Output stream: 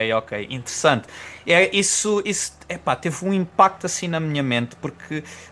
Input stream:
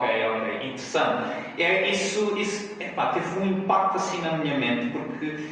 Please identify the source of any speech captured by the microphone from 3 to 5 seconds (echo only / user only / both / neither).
echo only